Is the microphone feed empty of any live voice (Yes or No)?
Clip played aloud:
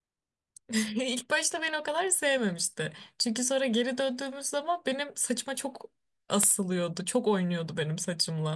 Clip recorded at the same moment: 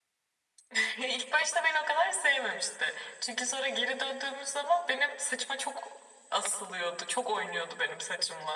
Yes